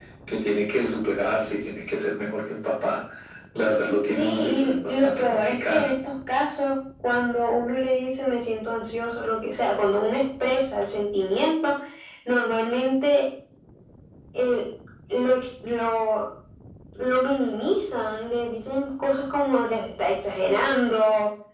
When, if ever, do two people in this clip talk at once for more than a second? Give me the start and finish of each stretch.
4.2-5.9

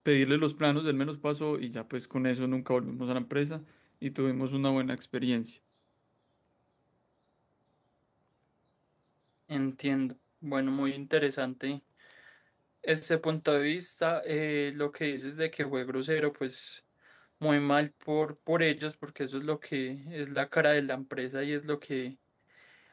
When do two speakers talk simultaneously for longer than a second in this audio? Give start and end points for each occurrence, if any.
none

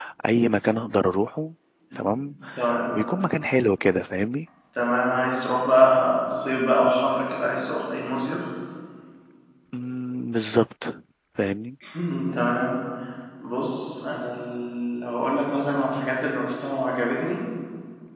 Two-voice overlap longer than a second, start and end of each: none

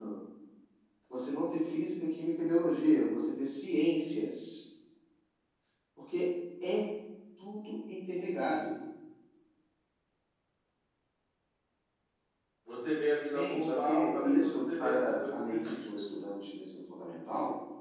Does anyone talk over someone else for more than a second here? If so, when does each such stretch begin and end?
13.2-16.0

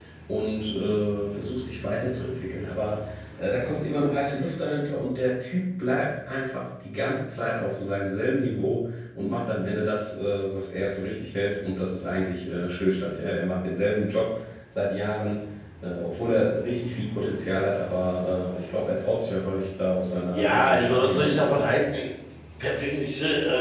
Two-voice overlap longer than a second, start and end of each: 20.3-21.7

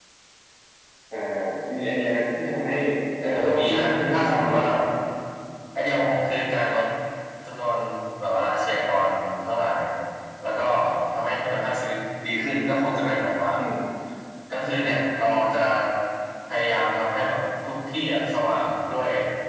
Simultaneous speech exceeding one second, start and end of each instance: 3.3-4.7

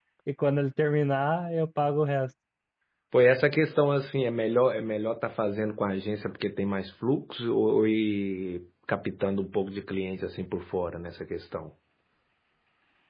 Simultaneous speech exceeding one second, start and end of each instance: none

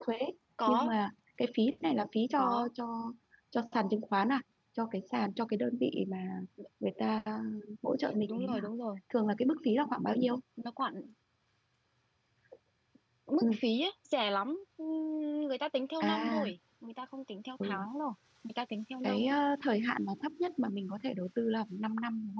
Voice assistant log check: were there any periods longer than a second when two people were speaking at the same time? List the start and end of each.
none

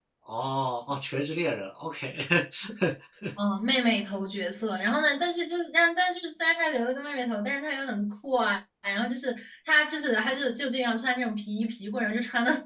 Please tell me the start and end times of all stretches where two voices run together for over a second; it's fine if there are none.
none

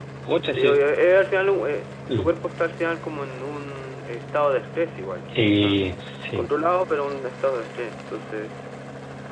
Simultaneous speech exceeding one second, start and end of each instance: none

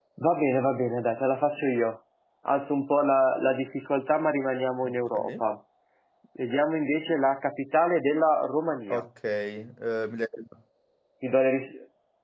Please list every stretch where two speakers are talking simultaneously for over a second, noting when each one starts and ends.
none

